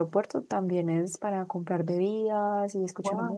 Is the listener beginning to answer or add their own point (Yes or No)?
No